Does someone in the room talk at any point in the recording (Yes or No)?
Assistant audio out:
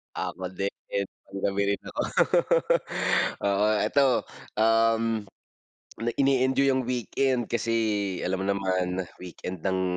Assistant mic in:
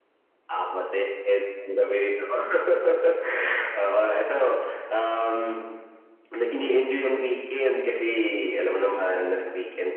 No